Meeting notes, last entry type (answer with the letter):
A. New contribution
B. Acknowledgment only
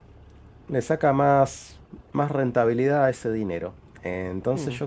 B